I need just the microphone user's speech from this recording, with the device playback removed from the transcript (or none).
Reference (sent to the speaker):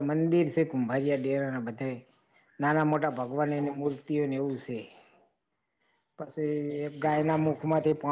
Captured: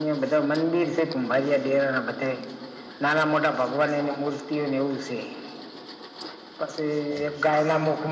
none